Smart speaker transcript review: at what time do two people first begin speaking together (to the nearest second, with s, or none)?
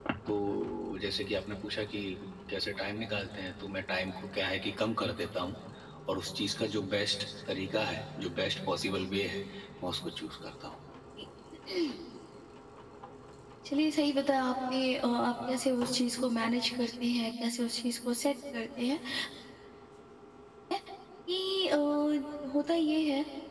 none